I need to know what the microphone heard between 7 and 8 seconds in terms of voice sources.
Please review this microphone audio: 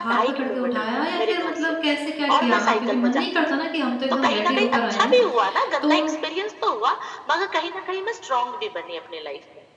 echo only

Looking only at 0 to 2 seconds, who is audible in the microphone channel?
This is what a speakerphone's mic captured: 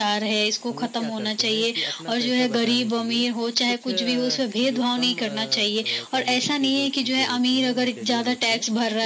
both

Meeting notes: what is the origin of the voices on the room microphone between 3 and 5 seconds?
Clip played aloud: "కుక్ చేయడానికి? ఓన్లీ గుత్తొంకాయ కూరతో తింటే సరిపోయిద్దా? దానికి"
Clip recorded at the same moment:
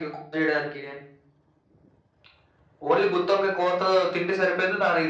echo only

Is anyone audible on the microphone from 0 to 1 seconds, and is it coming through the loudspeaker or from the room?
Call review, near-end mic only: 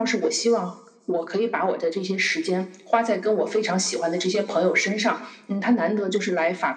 echo only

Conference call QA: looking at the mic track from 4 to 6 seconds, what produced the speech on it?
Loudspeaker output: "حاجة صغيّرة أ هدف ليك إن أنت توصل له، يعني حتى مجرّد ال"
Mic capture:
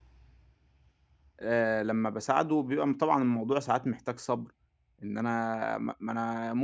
user only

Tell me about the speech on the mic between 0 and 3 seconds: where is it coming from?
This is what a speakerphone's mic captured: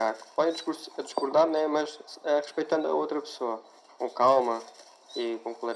echo only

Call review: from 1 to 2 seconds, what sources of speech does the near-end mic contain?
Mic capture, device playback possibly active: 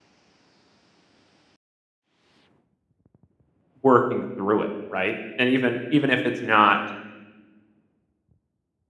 neither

